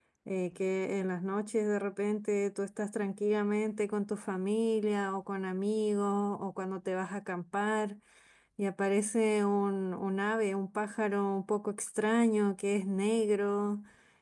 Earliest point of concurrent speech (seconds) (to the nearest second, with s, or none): none